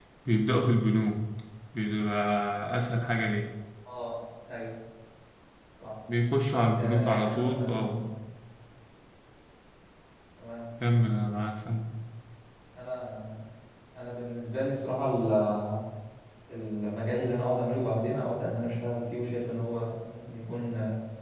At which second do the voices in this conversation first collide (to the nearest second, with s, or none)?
7 s